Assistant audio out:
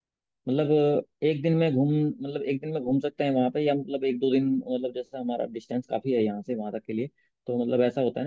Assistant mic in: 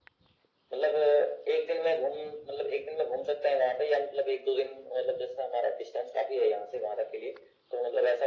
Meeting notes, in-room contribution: none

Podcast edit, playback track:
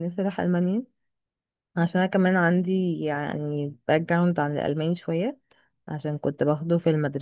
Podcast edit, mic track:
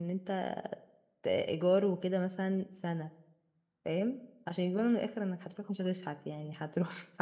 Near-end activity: present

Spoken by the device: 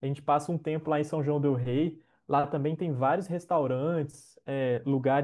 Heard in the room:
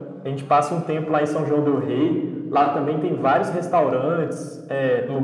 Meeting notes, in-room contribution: none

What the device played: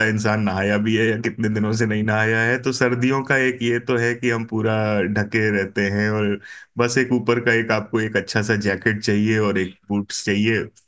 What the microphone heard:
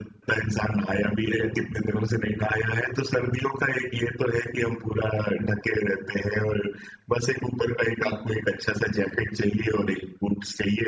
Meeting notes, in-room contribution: present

